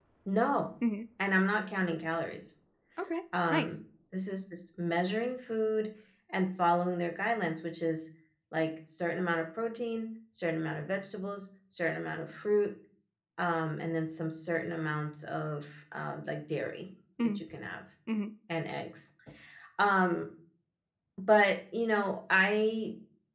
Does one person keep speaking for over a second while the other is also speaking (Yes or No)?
No